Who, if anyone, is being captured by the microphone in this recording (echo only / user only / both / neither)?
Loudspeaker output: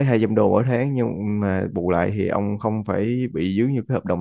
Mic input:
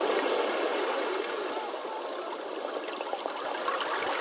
neither